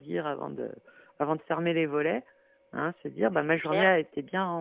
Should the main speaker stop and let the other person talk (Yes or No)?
No